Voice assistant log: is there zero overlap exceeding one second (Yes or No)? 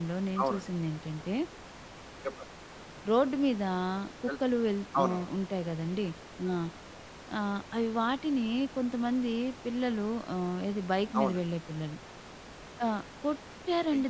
Yes